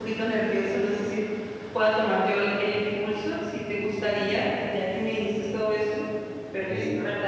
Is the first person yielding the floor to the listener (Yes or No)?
No